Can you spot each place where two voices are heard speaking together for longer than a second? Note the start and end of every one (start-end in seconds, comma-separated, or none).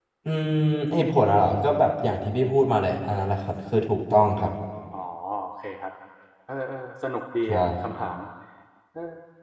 none